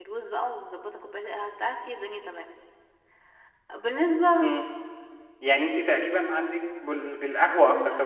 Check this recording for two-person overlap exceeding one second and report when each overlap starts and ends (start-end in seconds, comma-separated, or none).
none